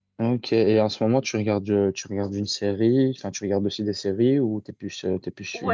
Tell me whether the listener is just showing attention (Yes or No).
No